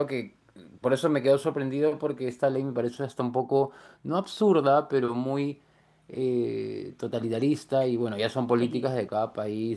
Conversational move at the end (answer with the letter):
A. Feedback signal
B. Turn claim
A